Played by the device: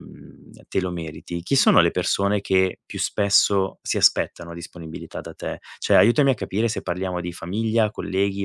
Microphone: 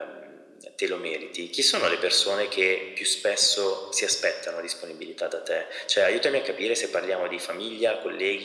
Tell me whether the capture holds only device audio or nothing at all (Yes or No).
Yes